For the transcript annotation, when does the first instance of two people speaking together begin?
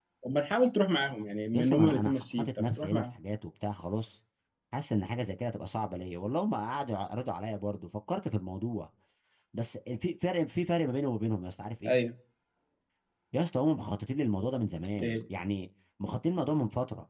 2 s

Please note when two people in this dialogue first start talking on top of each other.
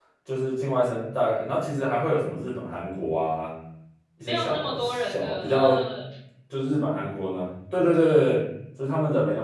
4 s

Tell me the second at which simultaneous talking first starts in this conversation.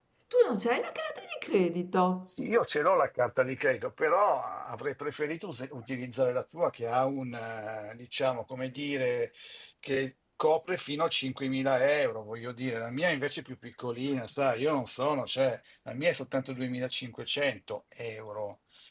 none

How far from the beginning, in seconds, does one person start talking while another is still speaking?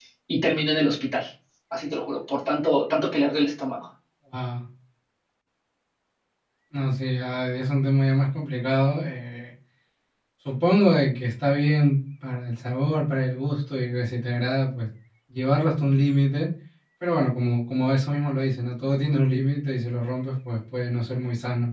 none

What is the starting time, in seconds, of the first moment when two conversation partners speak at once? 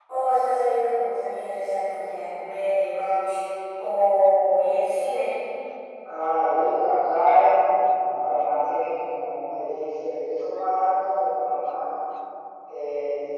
none

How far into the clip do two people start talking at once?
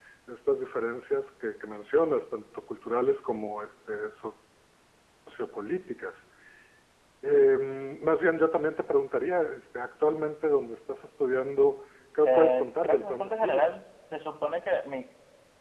12 s

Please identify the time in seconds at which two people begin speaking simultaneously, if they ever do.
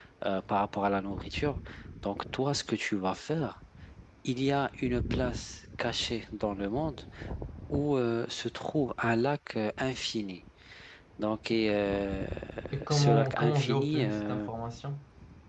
13 s

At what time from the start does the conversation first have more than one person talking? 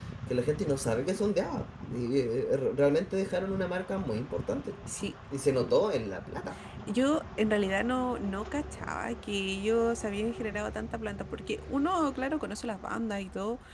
none

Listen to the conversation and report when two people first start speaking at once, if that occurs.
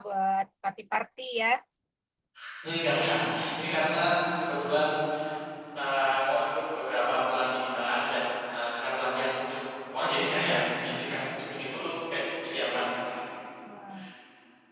none

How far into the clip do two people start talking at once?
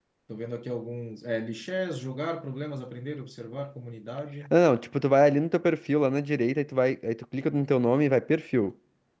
none

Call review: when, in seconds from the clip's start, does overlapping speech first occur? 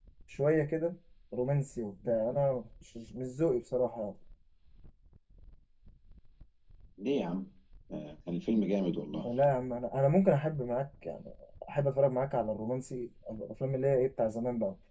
none

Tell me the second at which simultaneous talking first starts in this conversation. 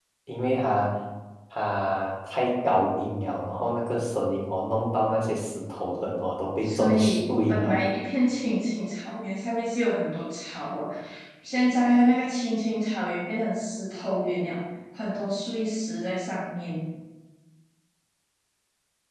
7 s

